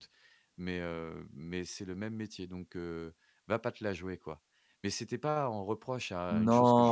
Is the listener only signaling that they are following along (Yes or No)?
No